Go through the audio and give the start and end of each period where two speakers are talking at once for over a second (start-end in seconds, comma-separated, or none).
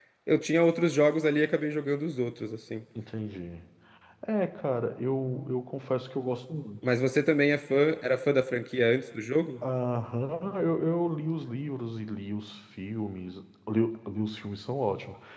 none